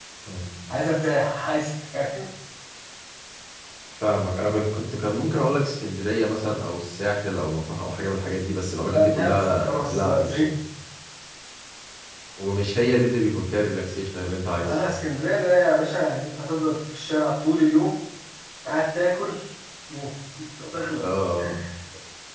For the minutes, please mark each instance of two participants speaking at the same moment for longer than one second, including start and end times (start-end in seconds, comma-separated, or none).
8.8-10.4